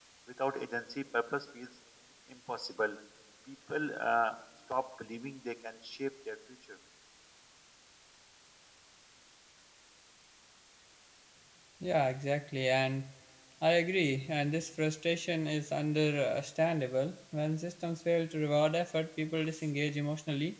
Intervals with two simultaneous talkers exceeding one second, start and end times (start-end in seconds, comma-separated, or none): none